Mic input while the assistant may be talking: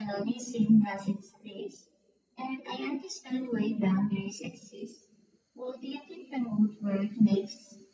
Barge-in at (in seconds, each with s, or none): none